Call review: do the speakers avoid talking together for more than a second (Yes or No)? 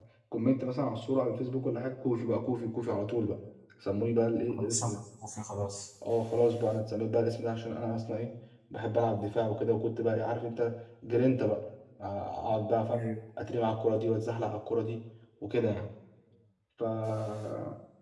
Yes